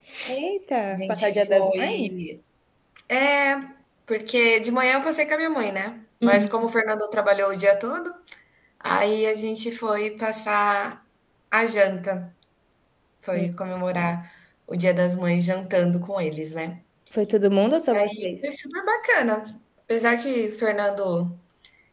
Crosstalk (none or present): present